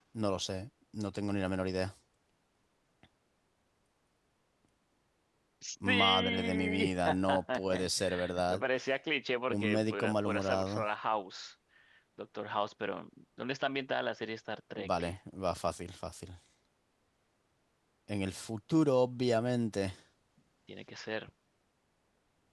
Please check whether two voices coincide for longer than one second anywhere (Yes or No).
Yes